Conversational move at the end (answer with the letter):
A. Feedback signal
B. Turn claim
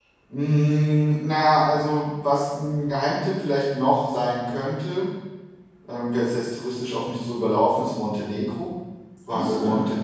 A